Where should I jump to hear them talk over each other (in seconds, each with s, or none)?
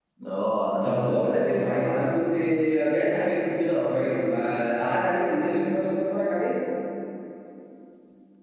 0.8 s